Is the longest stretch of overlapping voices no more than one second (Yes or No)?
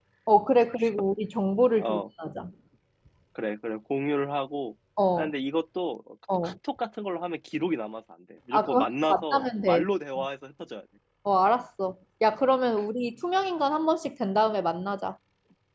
No